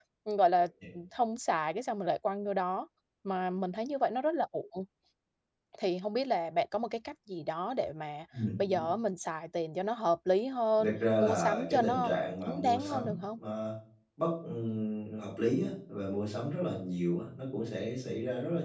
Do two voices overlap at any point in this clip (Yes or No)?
Yes